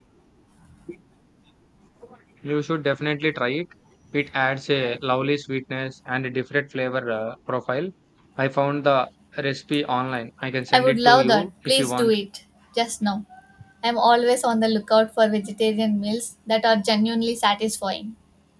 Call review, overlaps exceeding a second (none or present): present